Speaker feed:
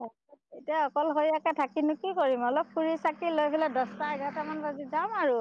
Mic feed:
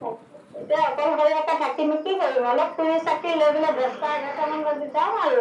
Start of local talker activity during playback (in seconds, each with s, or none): none